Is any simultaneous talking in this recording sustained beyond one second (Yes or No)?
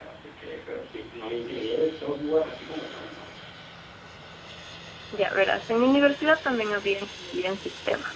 No